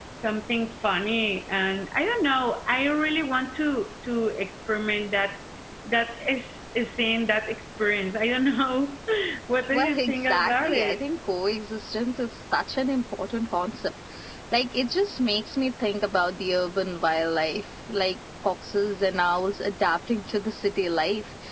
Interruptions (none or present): present